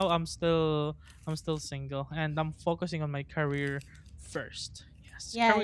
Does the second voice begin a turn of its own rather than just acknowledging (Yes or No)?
Yes